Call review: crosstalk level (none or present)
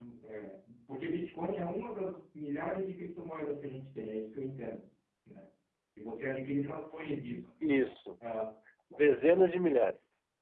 none